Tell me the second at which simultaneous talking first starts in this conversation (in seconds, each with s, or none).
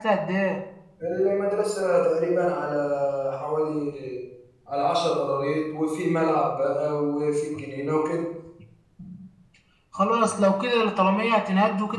none